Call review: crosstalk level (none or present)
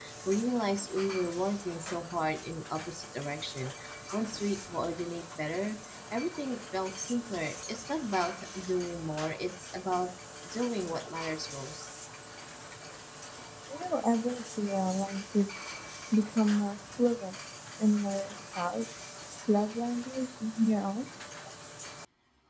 none